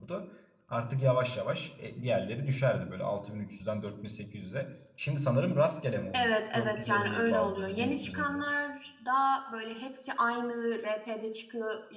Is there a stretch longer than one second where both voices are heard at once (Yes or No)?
Yes